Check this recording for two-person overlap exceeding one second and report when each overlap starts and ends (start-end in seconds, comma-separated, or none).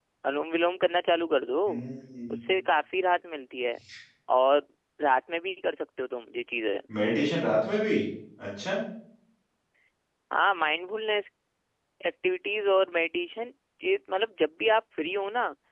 none